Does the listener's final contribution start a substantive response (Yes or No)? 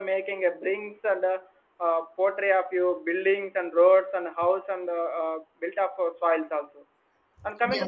No